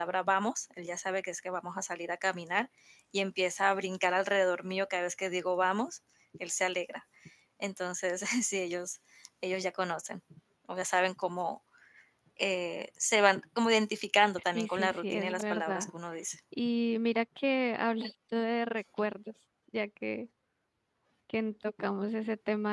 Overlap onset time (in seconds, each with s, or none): 14.5 s